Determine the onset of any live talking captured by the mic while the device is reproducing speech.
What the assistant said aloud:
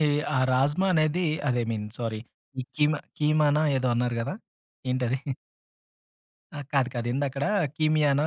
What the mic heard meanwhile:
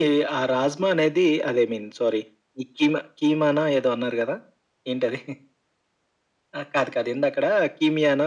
none

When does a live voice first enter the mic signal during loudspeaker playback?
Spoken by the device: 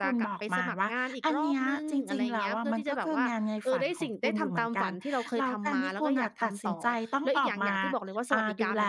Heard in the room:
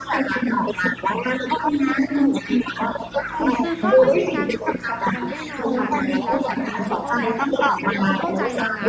3.6 s

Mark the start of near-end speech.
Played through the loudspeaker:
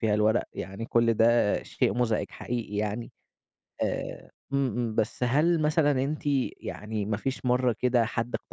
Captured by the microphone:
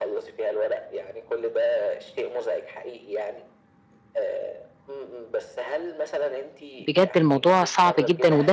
6.9 s

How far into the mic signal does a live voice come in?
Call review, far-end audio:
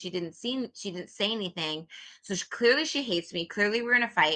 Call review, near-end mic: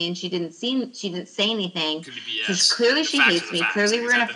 2.0 s

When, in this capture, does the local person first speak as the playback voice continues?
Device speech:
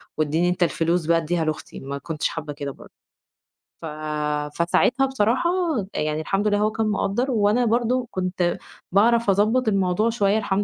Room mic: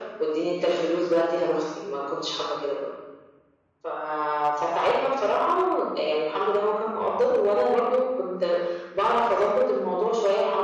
none

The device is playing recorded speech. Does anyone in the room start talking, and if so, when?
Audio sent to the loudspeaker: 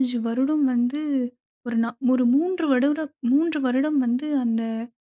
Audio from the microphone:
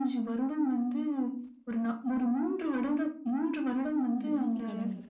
4.2 s

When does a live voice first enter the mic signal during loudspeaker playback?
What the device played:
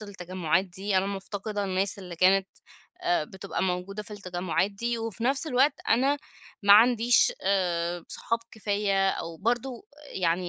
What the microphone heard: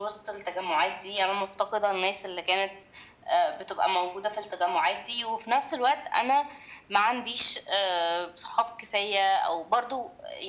none

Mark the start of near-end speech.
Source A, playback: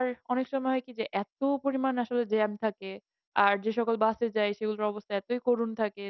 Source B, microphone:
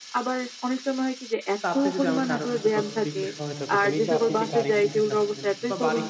1.6 s

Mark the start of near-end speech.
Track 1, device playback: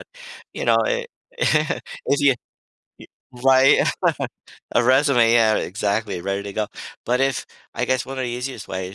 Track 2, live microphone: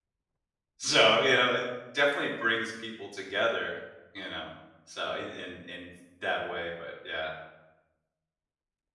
0.8 s

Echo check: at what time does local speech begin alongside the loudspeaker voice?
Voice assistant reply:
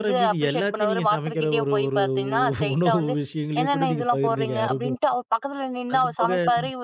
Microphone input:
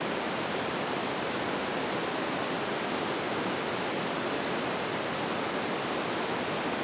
none

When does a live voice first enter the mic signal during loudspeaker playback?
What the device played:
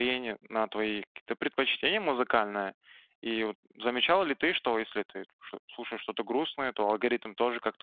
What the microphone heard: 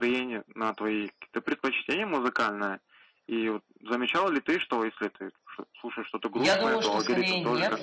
6.3 s

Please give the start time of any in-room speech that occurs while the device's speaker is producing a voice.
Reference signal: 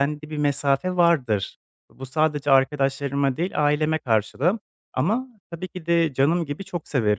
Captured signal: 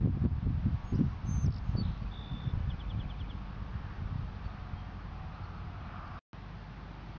none

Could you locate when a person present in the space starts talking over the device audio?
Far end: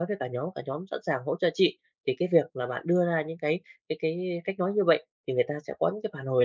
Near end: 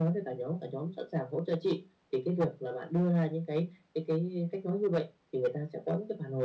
none

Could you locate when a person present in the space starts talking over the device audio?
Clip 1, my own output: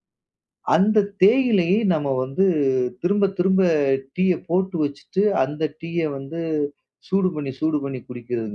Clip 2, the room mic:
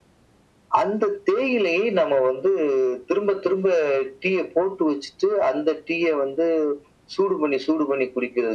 none

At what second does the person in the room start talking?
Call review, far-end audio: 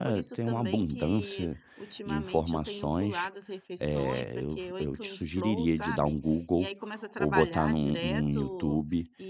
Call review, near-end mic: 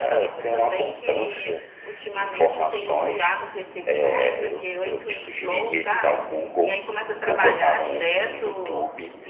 none

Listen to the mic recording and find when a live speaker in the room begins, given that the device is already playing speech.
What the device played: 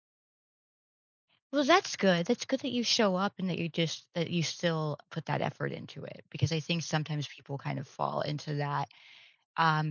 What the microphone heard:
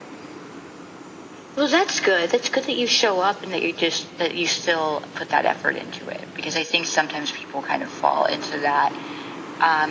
none

